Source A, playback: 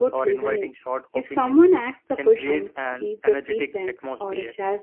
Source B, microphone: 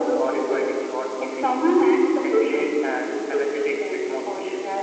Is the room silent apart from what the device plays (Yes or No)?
Yes